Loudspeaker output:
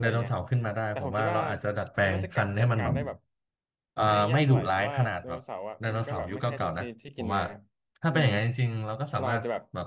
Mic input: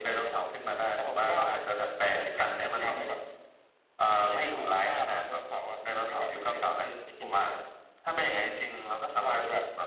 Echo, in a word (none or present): present